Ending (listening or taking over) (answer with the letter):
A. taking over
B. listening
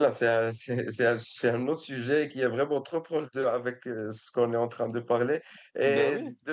B